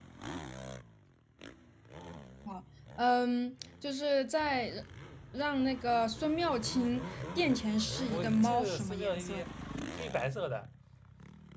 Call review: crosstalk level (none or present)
present